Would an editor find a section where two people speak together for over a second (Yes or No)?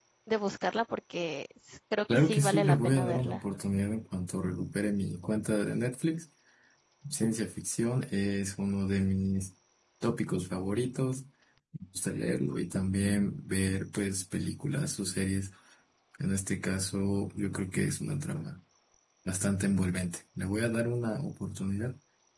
Yes